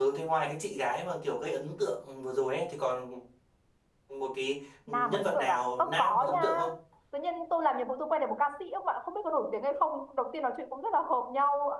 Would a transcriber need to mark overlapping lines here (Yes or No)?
Yes